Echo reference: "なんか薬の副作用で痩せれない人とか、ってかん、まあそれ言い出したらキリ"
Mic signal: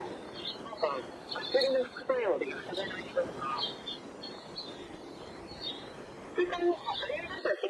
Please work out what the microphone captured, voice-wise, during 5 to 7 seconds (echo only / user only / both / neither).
echo only